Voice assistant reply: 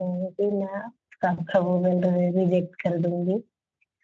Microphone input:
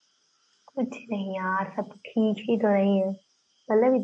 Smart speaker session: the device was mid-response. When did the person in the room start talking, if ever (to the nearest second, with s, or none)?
1 s